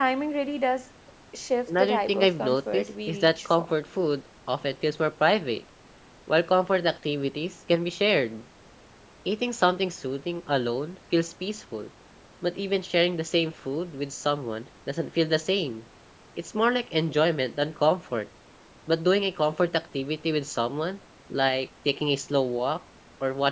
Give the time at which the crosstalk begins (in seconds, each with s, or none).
1.7 s